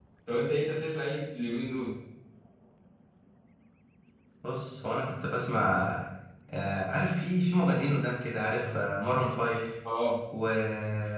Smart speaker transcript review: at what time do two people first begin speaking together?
none

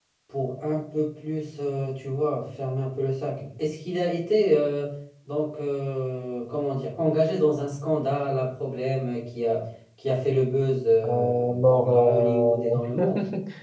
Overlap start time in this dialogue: 11 s

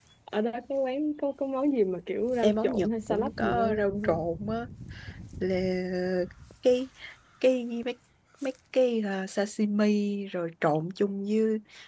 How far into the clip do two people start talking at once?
2 s

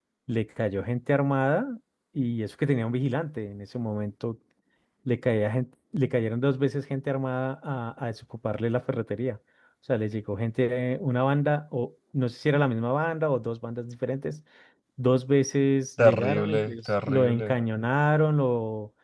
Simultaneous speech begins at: 16 s

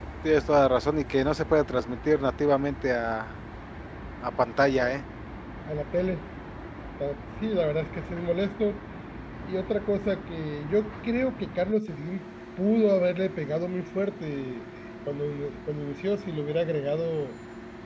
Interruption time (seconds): none

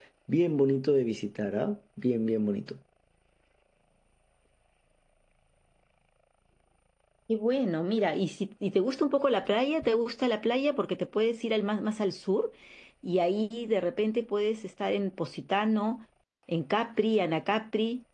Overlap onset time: none

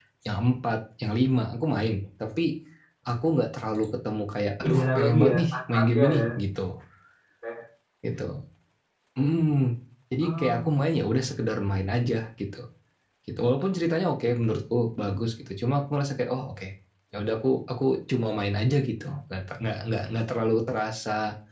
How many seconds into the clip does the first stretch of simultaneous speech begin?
5 s

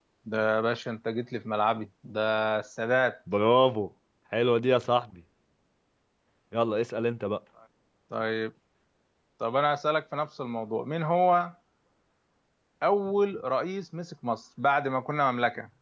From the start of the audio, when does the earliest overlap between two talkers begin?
none

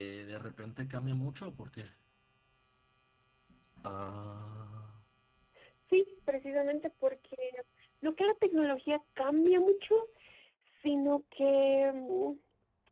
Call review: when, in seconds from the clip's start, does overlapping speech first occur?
none

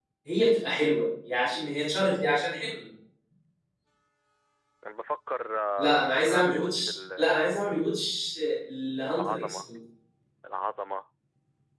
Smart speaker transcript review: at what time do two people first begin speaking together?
6 s

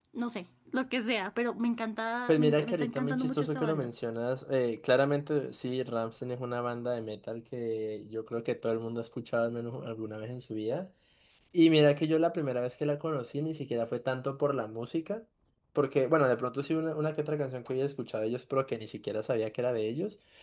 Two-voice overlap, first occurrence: 2 s

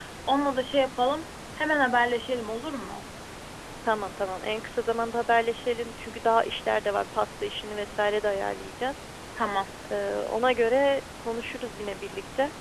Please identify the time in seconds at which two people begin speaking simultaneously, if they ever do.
none

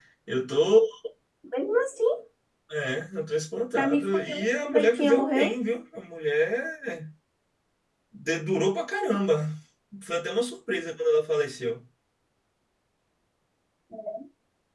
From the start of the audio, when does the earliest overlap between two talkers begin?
4 s

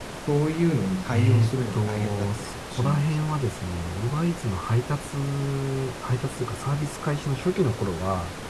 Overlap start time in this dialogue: 1 s

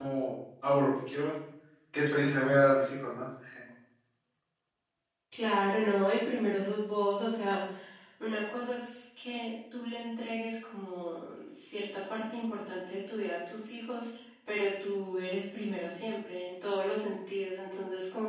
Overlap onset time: none

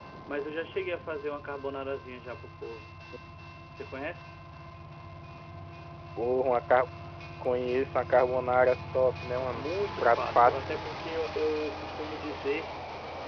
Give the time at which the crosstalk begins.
10 s

